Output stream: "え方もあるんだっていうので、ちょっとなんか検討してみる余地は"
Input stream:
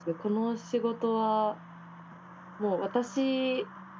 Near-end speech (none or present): present